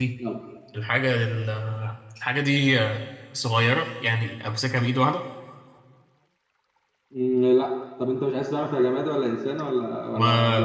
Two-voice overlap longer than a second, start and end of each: none

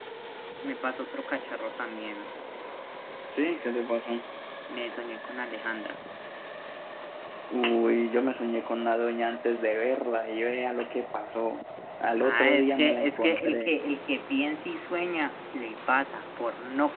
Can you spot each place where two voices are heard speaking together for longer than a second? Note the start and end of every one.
12.2-13.7

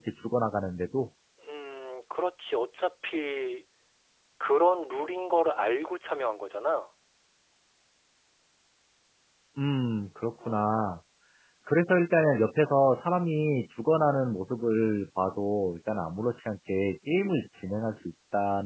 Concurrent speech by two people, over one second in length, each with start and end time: none

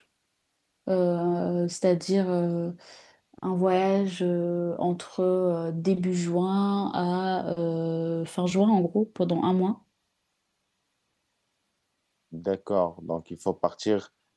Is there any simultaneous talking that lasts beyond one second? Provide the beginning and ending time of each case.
none

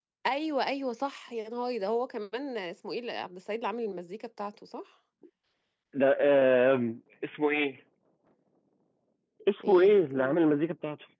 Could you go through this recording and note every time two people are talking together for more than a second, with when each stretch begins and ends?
none

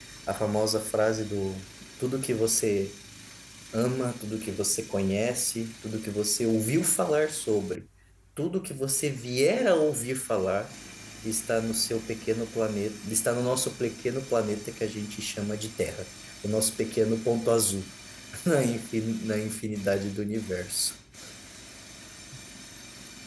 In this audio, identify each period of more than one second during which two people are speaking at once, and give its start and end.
none

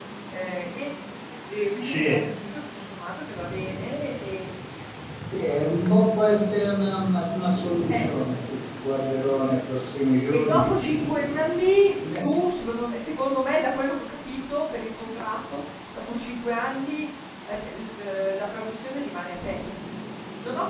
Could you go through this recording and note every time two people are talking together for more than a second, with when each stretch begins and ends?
none

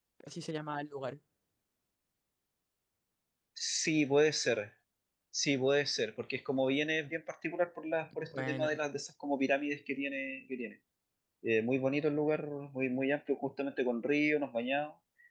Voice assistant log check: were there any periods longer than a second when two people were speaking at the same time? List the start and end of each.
none

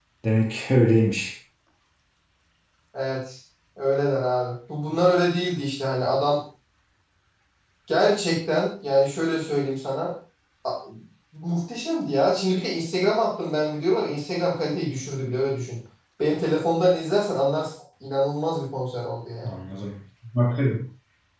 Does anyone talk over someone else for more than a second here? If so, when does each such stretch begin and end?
none

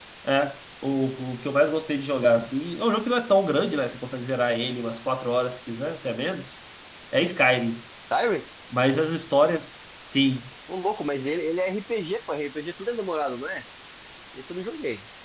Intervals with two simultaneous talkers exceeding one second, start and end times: none

